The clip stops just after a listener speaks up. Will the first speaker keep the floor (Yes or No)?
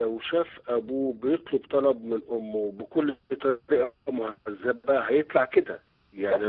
Yes